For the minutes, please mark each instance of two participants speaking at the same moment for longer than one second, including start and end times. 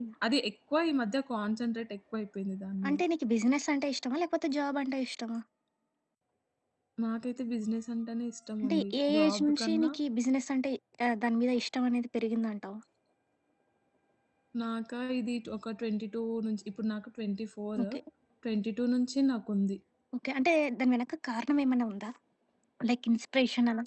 8.6-9.9

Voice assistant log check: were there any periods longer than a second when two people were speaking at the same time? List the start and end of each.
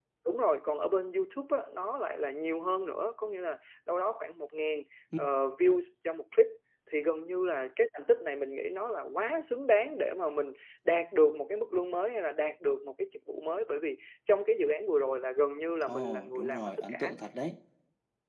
15.8-17.1

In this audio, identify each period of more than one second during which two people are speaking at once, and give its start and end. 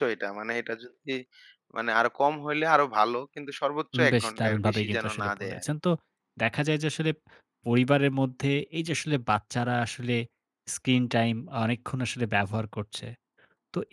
4.0-5.6

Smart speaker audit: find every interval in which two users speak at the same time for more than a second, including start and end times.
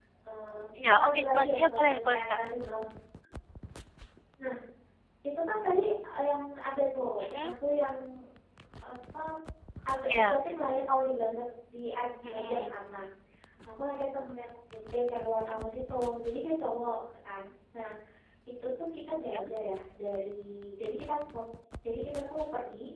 0.8-2.4

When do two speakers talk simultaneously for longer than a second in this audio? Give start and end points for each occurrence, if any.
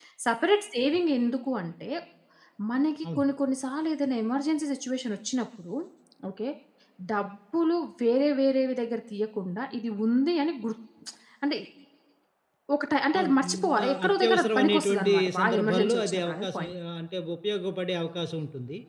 13.1-16.7

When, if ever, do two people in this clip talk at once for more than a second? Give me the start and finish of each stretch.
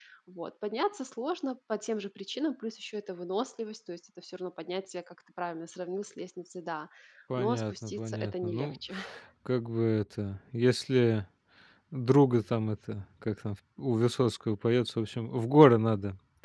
7.4-8.8

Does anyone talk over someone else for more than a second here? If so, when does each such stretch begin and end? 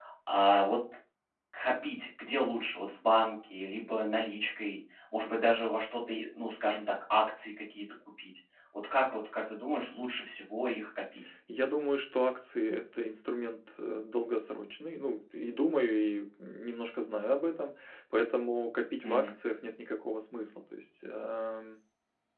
none

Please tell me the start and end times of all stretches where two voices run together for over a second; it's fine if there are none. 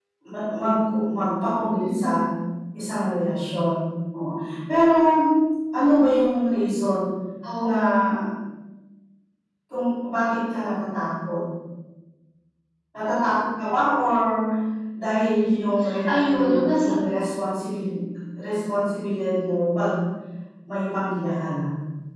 15.2-16.9

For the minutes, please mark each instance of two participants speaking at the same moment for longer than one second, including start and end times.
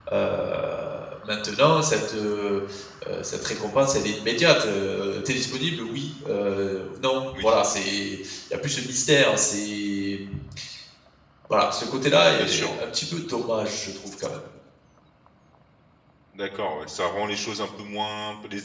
none

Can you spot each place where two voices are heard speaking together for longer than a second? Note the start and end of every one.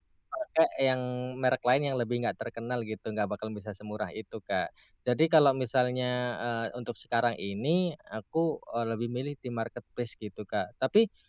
none

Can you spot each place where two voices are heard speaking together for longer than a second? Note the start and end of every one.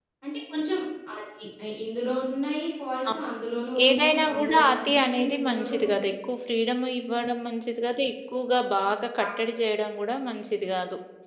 3.9-6.0

